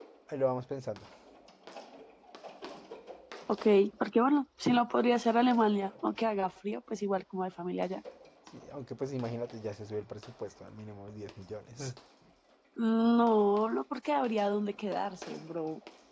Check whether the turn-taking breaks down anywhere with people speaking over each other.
No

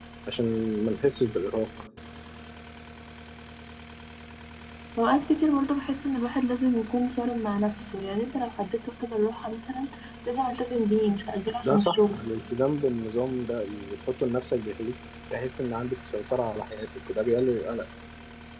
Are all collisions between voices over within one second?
Yes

